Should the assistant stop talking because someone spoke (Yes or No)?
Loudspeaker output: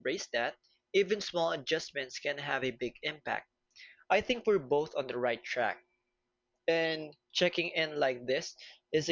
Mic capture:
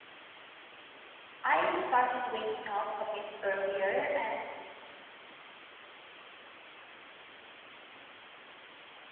Yes